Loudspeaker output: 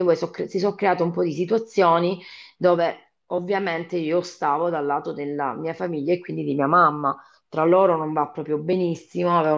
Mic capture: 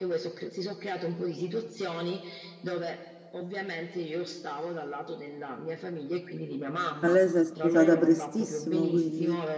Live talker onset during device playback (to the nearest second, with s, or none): 7 s